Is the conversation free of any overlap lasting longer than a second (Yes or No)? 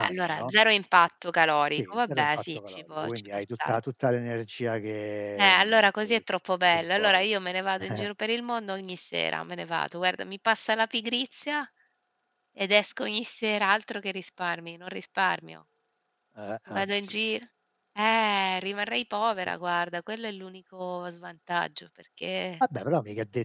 No